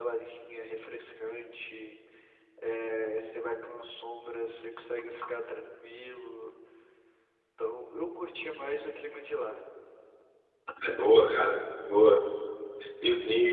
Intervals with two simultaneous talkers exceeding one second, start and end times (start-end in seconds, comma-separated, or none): none